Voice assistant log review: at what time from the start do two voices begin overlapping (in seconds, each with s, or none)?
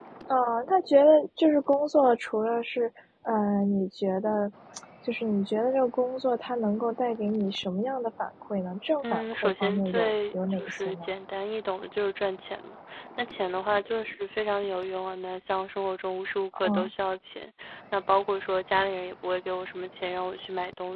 9.0 s